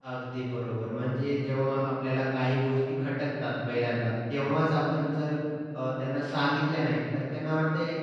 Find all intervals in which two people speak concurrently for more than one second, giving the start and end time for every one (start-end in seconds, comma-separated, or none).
none